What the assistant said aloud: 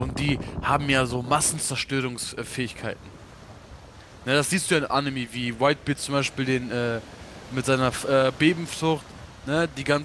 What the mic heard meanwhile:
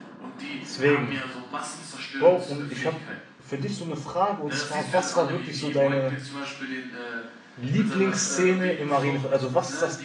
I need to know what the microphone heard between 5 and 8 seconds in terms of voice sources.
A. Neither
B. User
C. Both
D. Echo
C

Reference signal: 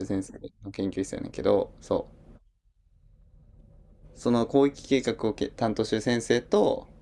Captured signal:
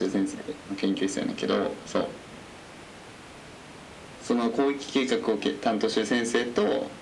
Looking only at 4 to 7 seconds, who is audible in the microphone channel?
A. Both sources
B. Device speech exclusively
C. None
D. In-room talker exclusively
B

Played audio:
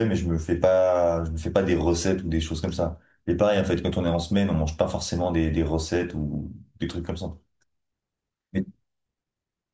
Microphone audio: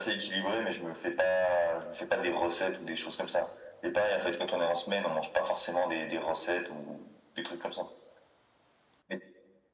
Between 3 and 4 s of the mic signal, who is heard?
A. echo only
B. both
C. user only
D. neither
A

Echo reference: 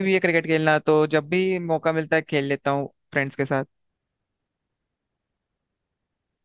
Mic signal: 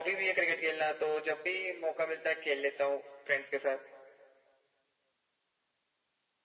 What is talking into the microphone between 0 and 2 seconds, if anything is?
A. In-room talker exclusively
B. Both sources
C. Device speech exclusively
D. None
C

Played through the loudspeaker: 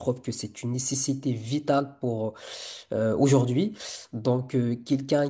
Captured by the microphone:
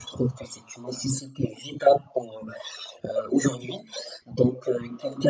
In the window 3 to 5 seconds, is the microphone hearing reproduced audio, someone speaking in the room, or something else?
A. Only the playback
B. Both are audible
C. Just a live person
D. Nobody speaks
A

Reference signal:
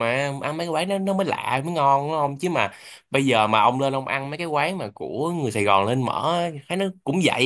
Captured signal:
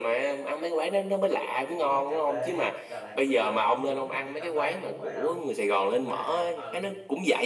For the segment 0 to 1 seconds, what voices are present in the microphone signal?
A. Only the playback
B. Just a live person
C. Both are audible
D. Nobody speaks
A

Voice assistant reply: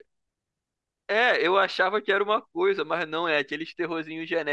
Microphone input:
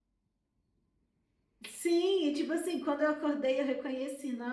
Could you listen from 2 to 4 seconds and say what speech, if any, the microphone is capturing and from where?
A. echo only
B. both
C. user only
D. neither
C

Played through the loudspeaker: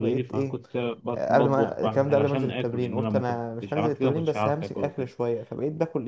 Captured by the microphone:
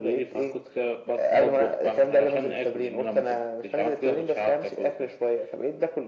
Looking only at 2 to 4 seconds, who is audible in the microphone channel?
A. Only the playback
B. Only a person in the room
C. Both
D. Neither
A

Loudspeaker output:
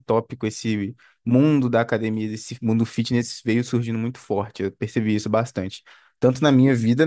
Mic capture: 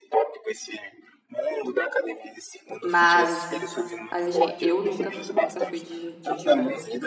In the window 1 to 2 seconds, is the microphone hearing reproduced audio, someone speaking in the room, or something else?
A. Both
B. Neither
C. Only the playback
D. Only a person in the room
C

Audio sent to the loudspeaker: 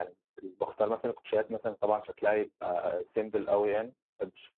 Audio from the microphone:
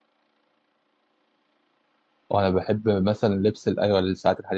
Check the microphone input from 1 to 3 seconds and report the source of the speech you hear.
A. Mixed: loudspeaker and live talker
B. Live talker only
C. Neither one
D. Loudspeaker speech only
B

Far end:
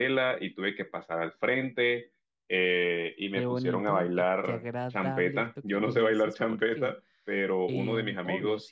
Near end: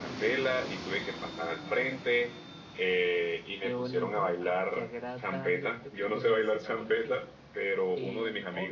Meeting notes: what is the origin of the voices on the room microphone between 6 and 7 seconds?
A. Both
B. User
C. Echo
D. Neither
C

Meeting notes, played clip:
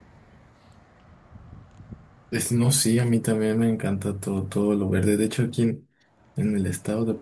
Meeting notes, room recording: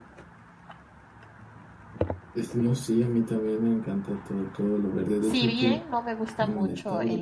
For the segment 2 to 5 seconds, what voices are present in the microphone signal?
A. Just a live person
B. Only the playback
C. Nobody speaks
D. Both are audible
B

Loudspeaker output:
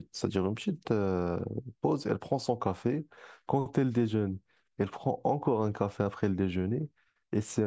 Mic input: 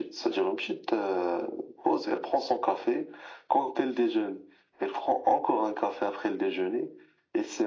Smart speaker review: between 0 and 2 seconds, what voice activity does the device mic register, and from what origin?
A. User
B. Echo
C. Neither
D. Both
B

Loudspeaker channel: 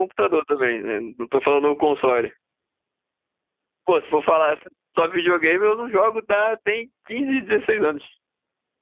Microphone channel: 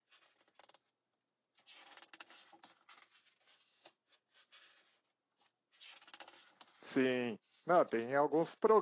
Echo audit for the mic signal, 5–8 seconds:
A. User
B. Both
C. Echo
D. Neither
A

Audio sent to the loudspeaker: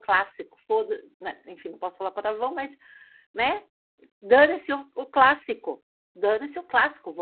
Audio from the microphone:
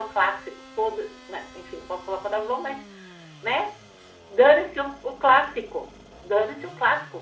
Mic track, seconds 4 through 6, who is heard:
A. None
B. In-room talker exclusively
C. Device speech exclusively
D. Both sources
C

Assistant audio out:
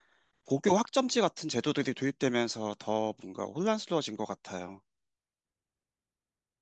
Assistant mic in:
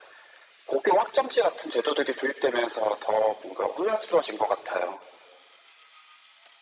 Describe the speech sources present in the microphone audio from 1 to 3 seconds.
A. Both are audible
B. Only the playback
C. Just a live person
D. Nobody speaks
B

